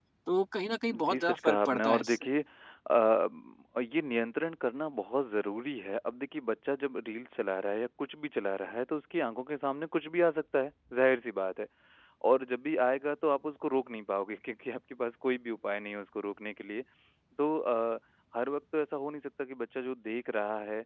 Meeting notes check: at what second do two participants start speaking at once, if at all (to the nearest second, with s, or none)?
1 s